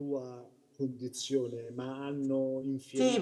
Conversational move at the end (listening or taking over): taking over